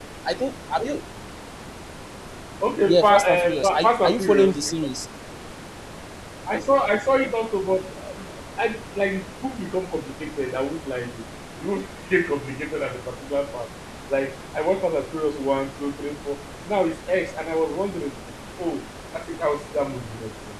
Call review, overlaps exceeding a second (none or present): present